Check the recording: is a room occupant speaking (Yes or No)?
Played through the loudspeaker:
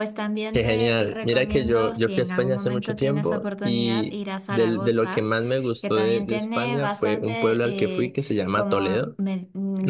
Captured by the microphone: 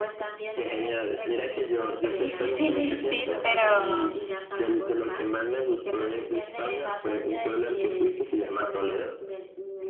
Yes